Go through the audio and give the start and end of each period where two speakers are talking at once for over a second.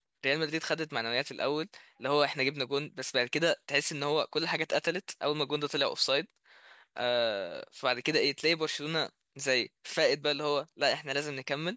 none

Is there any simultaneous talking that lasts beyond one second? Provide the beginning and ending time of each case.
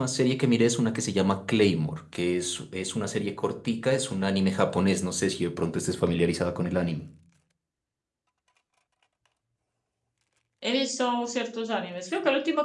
none

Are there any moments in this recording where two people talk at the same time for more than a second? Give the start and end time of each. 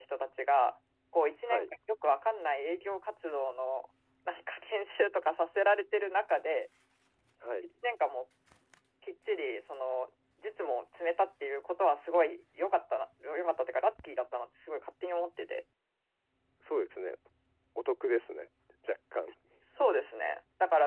none

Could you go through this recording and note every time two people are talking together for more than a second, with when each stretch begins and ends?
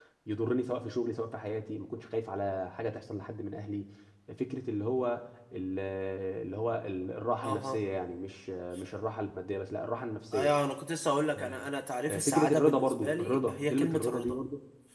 12.1-14.4

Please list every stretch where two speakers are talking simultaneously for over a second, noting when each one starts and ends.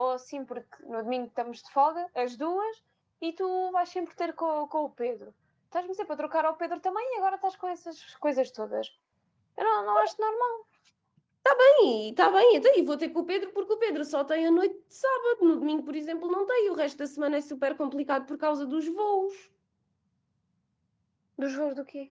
none

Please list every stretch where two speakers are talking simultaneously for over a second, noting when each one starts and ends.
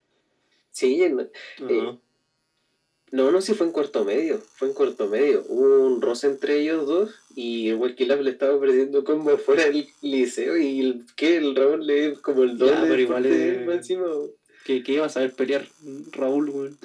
12.6-13.8

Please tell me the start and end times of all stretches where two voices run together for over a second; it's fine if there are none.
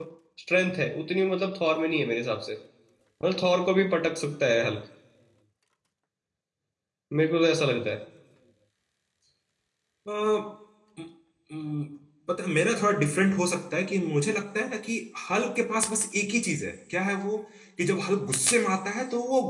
none

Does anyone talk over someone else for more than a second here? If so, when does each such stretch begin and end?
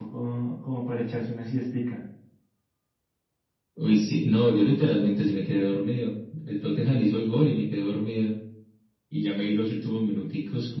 none

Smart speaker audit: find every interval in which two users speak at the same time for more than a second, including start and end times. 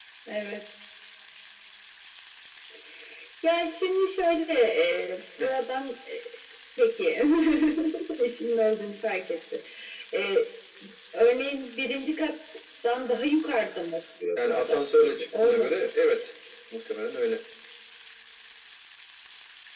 14.4-16.2

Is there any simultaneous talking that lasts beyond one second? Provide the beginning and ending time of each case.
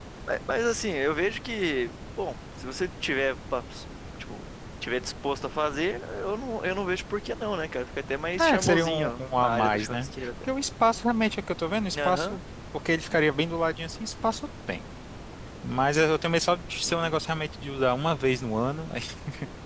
8.4-10.3

